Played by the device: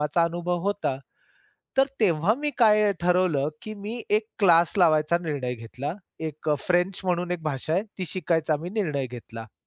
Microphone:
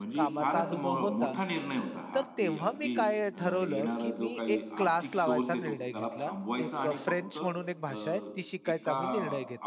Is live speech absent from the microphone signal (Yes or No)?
No